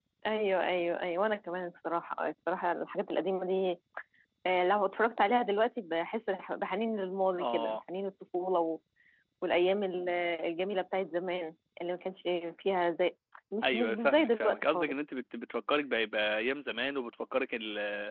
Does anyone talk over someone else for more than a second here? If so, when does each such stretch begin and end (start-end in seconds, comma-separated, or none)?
13.6-14.9